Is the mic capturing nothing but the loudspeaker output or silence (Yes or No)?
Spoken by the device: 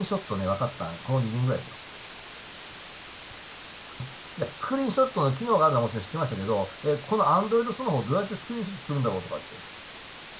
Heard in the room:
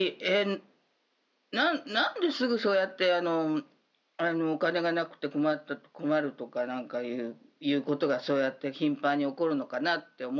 No